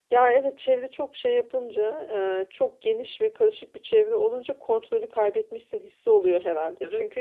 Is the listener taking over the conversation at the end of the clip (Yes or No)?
No